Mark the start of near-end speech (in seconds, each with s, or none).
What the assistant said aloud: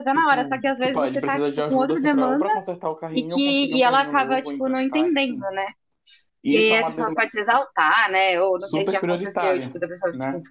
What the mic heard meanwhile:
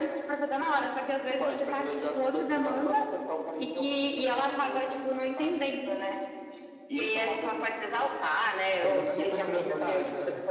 8.8 s